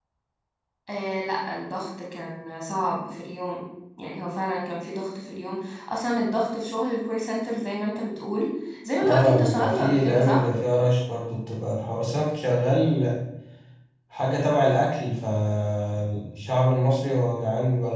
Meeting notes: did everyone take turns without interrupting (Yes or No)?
No